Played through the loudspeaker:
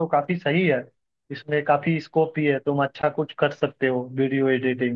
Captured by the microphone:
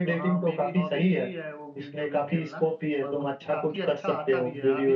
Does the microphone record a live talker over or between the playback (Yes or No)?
Yes